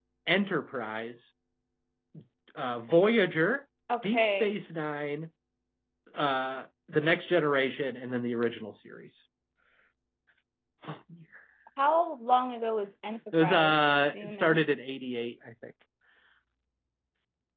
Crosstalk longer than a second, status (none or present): none